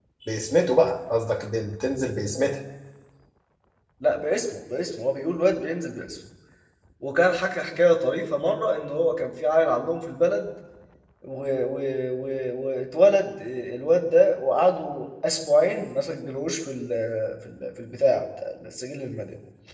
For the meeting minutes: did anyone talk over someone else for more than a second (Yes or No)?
No